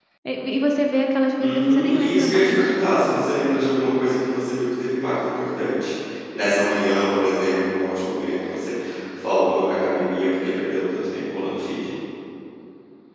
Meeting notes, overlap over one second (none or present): present